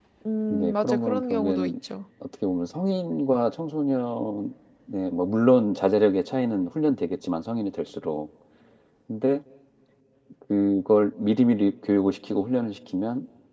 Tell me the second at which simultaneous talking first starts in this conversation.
0.5 s

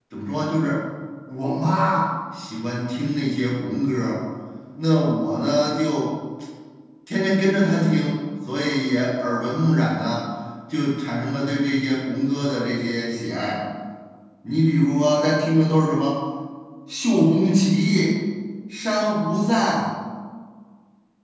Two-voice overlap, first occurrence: none

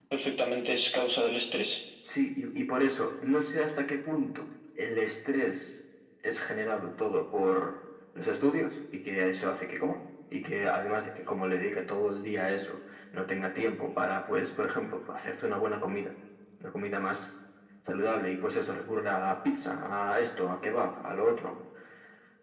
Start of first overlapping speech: none

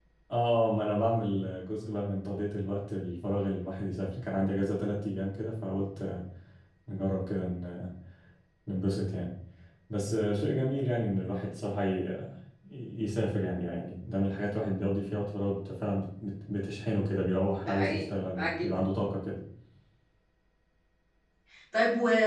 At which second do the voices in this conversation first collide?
17.6 s

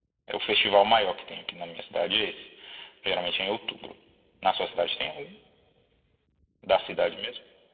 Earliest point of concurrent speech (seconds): none

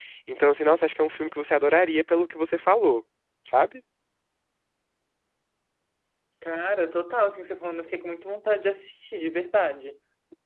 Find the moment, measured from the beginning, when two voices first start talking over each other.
none

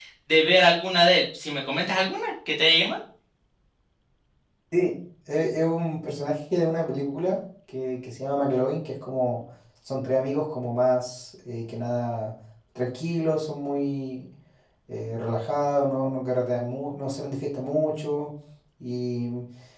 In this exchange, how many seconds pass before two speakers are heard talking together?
none

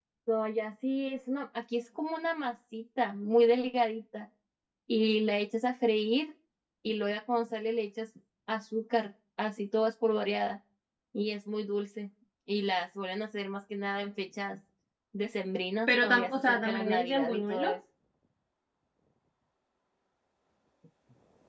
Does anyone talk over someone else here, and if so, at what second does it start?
15.9 s

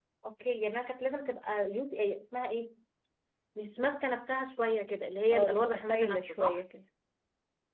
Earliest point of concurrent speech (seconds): 5.3 s

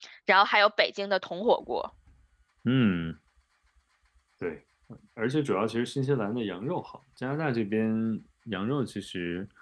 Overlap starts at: none

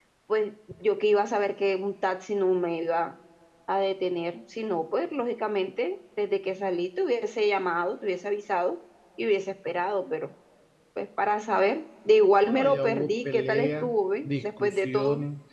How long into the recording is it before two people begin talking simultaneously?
12.4 s

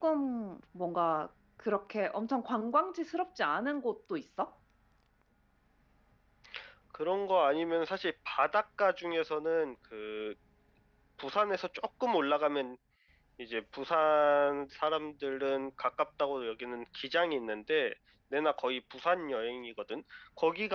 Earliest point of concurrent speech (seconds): none

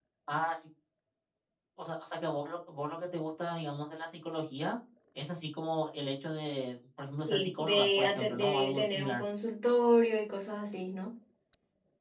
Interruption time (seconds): 7.3 s

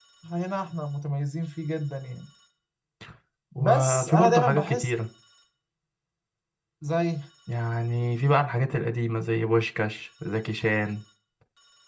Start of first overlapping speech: 3.6 s

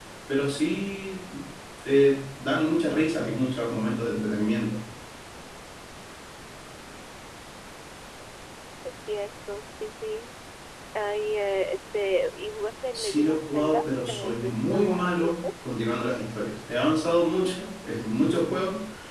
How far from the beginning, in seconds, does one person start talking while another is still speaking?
12.9 s

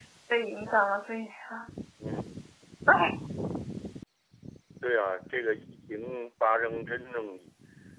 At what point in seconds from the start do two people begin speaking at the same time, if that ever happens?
none

